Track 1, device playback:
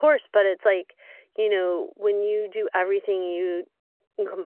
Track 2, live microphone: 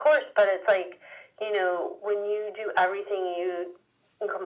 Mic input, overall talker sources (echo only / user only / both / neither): echo only